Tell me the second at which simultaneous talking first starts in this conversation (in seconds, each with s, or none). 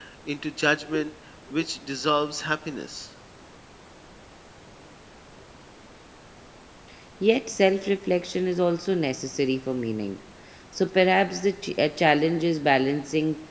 none